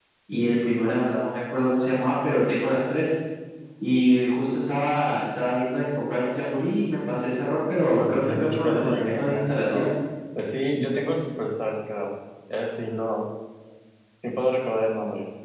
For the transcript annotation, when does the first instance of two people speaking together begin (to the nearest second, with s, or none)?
8 s